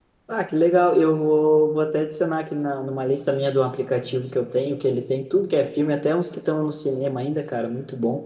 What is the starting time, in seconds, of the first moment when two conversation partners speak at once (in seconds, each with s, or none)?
none